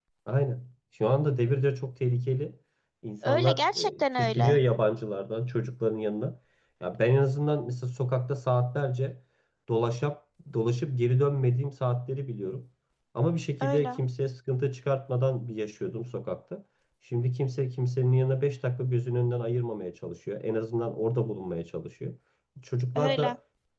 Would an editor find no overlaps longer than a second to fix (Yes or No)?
No